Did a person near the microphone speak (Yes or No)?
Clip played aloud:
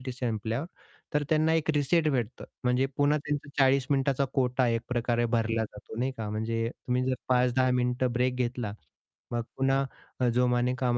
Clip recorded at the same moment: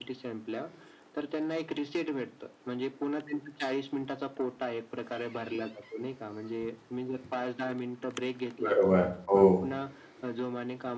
Yes